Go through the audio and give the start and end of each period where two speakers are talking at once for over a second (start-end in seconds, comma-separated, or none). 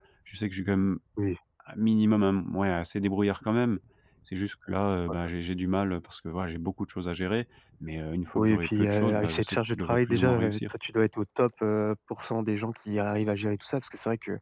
8.3-10.7